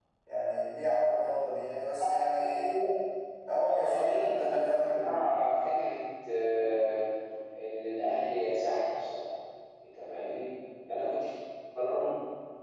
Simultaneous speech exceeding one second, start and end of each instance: 3.7-5.0

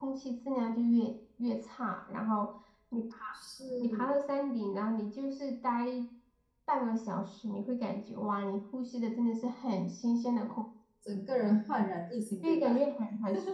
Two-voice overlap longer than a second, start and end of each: none

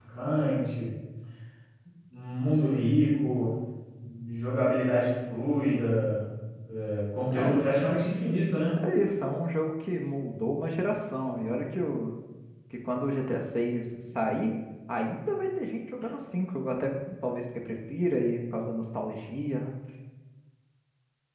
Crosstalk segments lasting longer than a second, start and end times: none

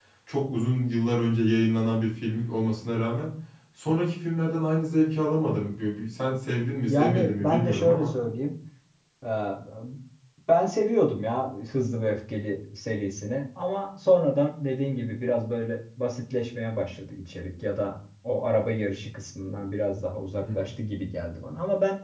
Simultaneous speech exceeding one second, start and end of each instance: 6.9-8.1

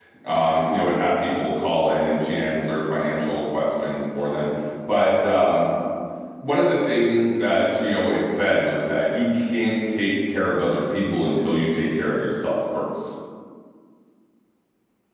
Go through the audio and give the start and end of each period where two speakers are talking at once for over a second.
none

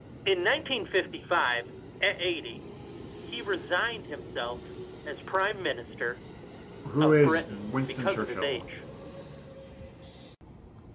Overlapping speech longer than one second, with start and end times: 7.0-8.7

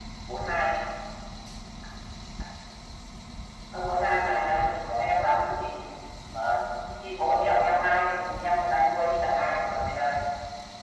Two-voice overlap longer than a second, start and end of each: 3.7-5.4

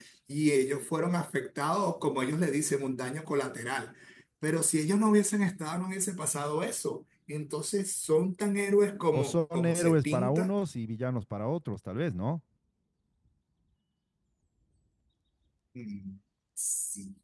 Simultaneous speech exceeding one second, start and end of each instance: 9.1-10.5

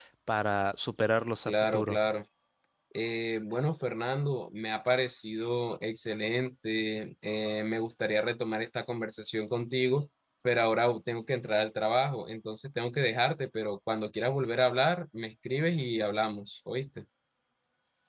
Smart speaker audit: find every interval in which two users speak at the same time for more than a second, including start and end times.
none

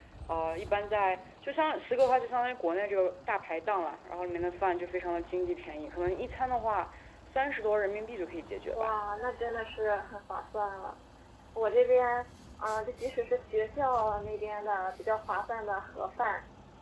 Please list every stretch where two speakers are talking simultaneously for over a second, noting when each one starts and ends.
none

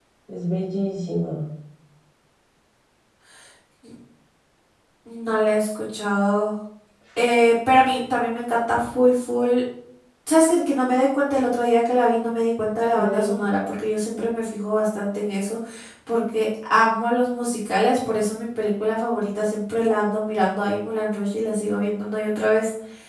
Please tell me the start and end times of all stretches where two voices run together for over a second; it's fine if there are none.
none

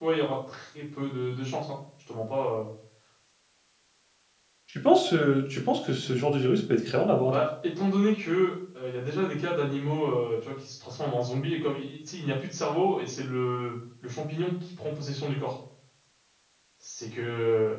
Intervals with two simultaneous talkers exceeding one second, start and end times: none

